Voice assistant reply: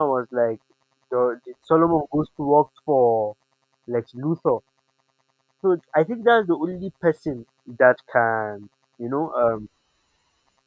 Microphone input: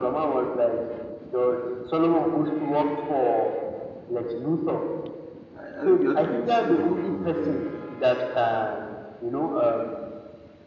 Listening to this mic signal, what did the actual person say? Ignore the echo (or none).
I, I think I think you've seen a couple of them. Uh,